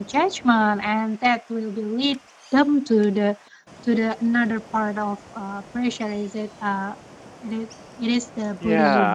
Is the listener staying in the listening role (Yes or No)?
No